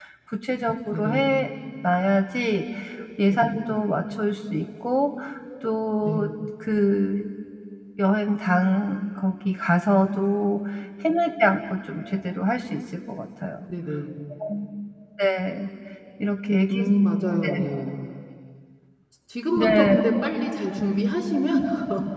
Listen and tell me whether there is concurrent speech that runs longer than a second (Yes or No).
No